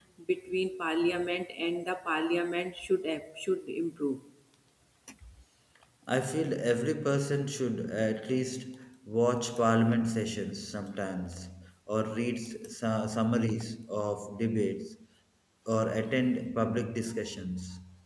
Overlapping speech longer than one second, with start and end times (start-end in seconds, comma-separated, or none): none